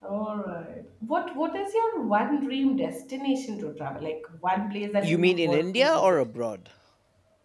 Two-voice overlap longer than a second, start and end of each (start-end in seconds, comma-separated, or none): 5.0-6.3